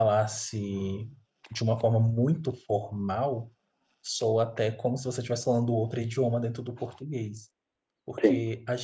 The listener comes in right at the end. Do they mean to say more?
No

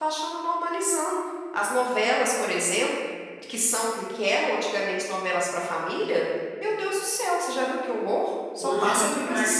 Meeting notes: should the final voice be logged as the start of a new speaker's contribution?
Yes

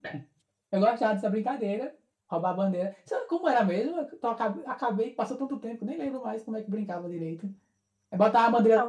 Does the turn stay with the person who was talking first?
Yes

